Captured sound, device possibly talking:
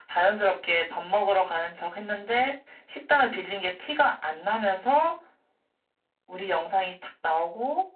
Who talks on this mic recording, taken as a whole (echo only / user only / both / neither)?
echo only